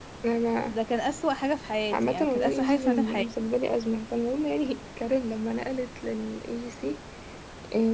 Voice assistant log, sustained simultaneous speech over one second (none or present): present